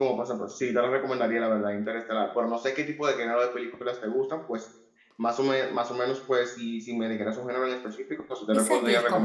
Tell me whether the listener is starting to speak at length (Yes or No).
Yes